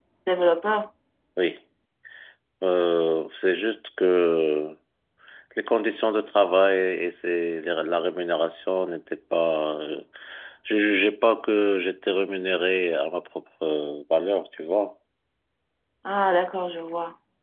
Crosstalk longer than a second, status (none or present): none